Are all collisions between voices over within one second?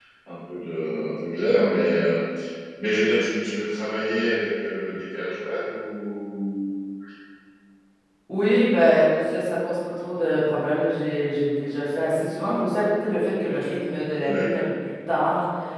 Yes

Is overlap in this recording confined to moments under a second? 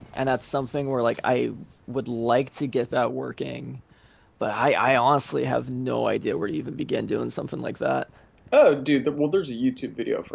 Yes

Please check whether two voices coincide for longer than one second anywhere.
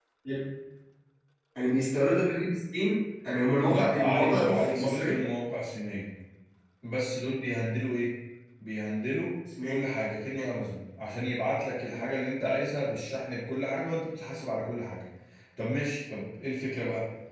Yes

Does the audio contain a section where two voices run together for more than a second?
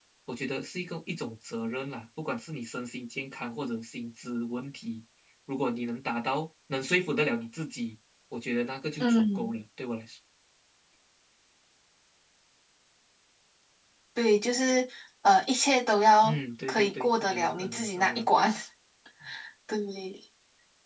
Yes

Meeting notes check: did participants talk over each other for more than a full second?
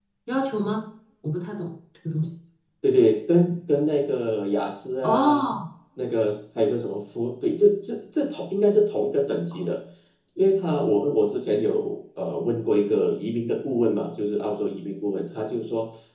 No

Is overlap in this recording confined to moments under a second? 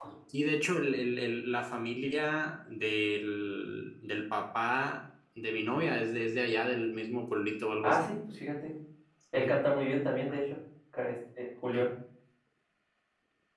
Yes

